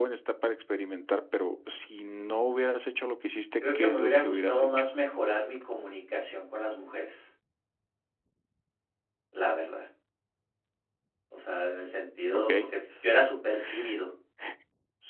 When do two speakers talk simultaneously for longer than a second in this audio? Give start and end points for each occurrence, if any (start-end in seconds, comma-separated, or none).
3.6-4.8